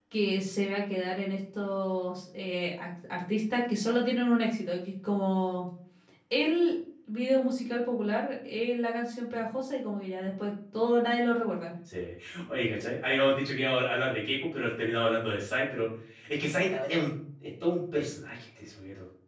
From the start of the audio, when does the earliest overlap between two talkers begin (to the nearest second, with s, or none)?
none